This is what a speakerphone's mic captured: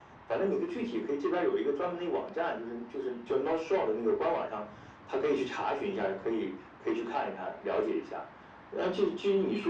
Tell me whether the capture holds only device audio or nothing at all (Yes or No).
Yes